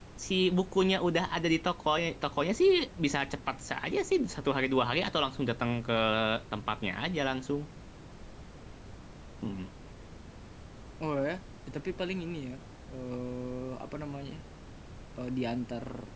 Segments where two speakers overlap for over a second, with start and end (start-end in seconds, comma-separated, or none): none